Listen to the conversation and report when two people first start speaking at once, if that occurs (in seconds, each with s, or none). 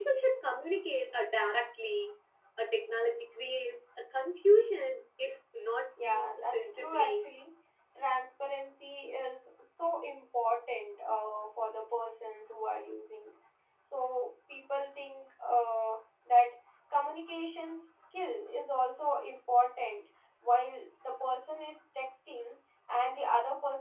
6.0 s